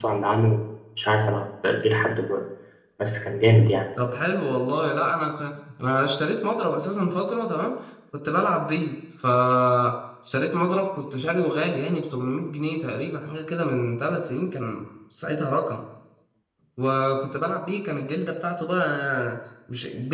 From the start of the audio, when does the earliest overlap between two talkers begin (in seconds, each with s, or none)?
none